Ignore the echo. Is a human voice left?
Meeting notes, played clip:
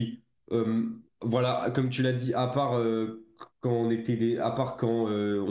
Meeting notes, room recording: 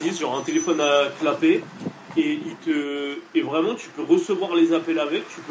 Yes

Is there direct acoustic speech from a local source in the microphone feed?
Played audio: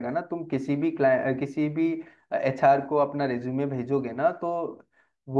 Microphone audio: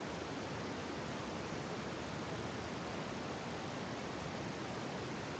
No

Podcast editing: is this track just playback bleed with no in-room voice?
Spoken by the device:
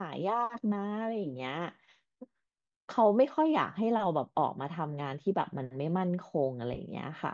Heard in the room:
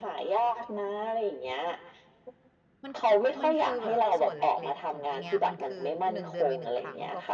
No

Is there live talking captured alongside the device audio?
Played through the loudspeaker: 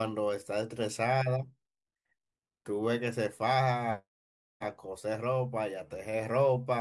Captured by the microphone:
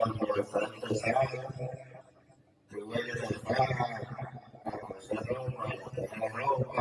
No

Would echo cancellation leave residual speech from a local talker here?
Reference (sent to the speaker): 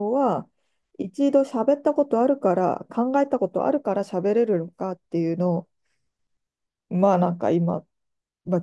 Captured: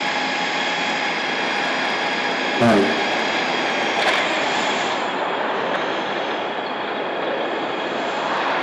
Yes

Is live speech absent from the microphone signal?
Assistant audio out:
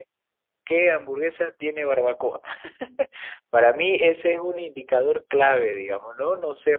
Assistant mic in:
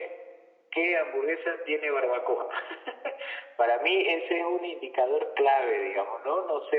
Yes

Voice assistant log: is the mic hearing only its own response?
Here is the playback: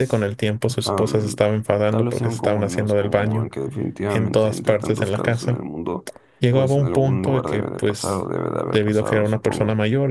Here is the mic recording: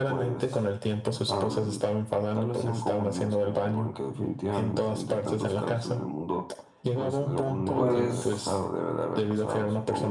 No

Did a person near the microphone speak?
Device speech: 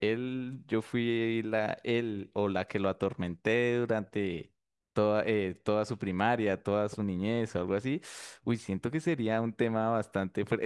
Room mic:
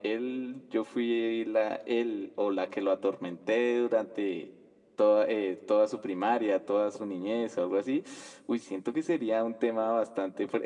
No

